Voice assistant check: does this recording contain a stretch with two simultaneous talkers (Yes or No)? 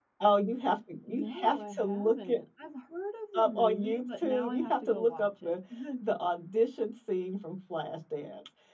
Yes